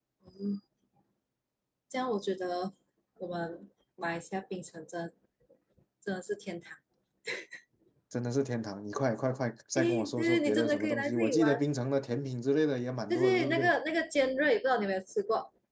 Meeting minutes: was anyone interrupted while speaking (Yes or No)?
Yes